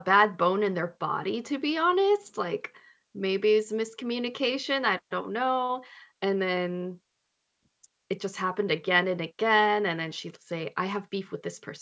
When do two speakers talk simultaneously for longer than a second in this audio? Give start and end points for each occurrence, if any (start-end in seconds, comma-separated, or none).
none